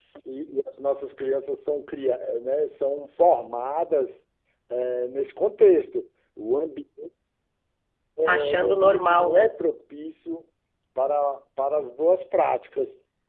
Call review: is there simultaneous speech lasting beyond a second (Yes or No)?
Yes